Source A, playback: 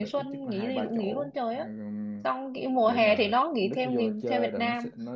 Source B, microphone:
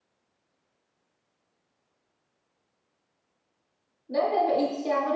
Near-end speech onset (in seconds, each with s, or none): 4.1 s